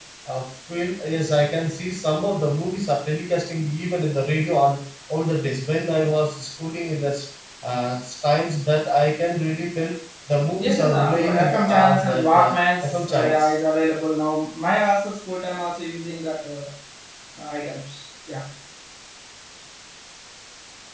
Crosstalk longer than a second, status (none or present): present